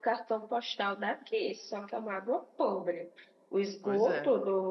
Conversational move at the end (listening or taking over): listening